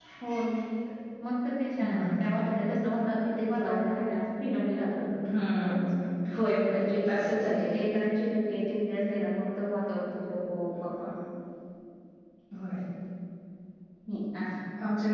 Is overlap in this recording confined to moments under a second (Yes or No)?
Yes